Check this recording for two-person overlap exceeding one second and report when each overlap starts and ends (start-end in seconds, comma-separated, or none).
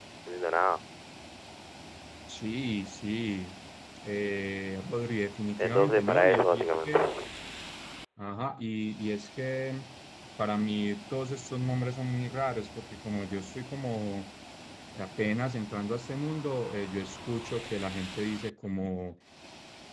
5.6-7.0